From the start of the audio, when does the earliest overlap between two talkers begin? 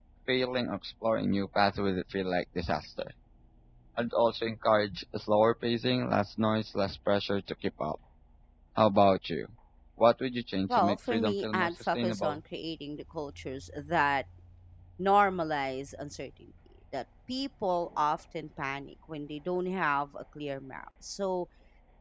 10.7 s

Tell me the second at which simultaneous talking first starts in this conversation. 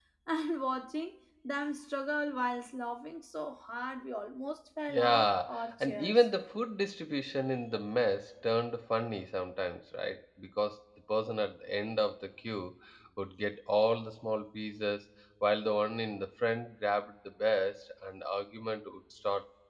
4.9 s

